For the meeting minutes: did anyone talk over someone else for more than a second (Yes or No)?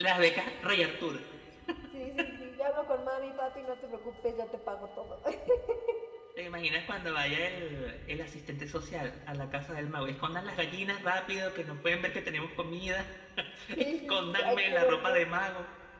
Yes